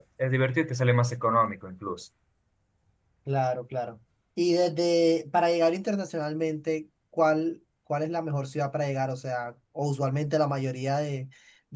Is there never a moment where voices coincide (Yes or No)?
Yes